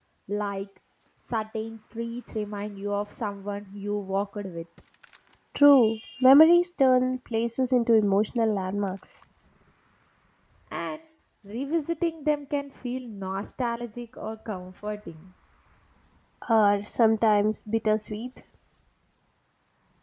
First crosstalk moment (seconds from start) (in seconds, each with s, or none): none